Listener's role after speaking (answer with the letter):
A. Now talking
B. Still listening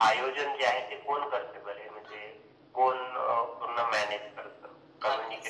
A